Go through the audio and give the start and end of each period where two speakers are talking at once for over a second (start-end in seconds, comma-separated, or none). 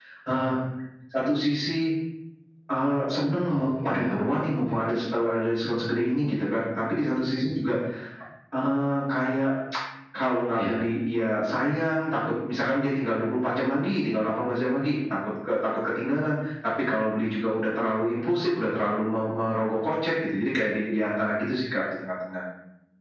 3.6-4.8